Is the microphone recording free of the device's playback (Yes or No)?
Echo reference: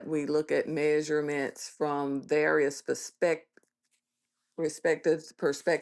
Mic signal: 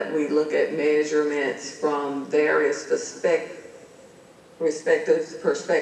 No